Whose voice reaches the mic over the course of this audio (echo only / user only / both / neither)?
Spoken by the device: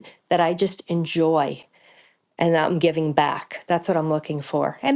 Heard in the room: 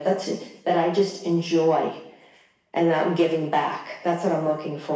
echo only